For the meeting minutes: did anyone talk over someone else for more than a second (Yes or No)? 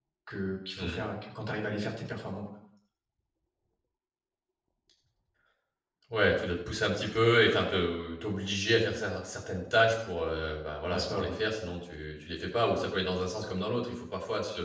No